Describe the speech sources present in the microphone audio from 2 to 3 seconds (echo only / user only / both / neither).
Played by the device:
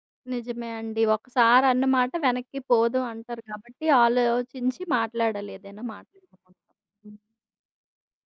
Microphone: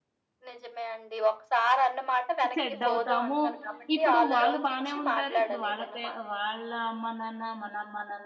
both